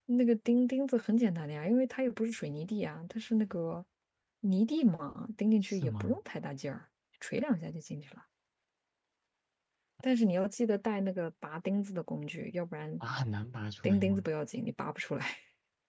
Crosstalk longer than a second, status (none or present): none